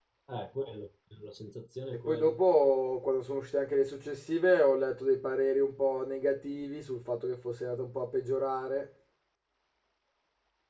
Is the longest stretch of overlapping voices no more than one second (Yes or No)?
Yes